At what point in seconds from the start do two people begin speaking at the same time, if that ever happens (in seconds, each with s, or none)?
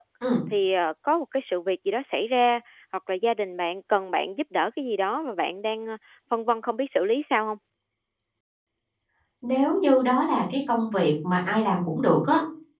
none